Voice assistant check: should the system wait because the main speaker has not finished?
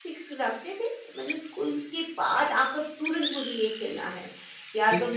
No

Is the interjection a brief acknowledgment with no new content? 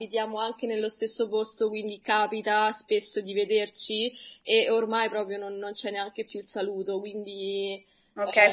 No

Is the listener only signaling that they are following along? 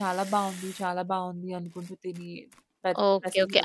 No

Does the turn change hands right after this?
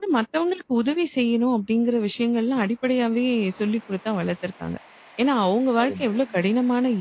No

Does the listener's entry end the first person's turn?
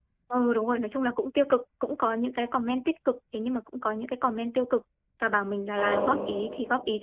No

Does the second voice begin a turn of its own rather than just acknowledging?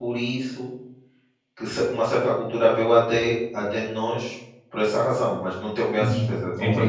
Yes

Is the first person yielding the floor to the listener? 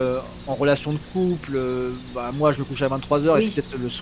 No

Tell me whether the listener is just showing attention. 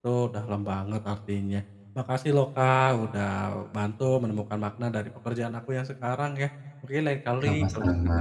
Yes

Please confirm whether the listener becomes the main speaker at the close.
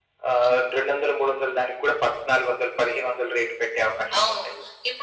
Yes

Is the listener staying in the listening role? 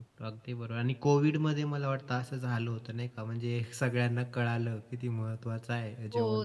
No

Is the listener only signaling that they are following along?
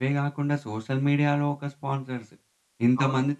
Yes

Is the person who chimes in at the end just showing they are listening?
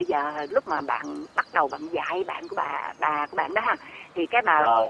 Yes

